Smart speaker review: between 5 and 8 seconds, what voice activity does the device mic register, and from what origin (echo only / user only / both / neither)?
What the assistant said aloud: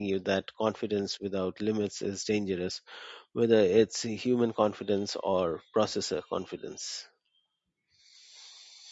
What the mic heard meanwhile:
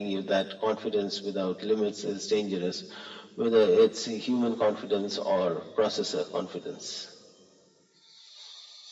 echo only